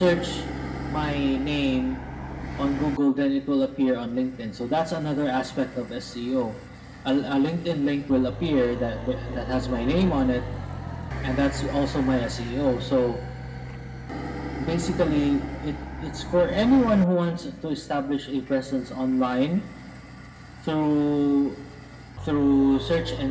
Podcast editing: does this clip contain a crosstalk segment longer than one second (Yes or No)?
No